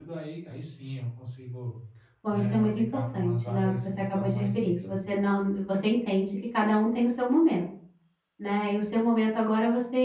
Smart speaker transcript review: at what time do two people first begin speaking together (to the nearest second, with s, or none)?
2 s